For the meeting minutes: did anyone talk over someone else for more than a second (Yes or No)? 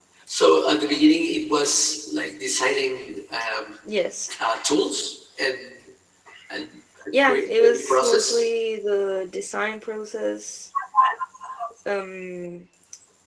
Yes